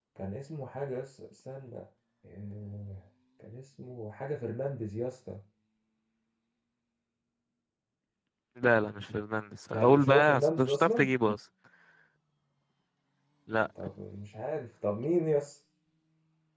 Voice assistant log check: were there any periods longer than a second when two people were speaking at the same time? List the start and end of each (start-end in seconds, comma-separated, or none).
9.7-11.1